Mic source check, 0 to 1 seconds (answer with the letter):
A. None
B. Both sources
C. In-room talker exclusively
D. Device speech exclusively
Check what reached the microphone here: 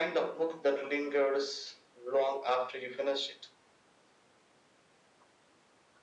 D